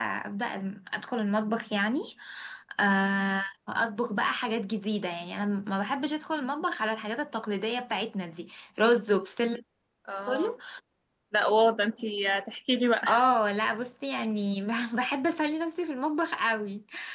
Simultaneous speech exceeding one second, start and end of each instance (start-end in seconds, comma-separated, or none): none